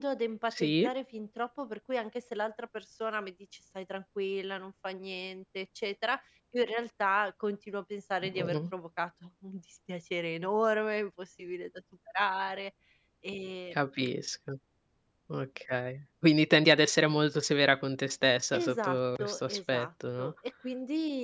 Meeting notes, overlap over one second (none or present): present